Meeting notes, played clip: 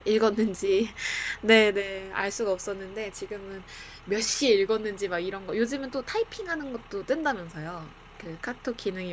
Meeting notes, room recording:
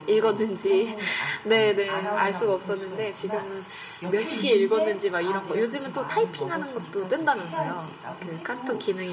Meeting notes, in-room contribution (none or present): present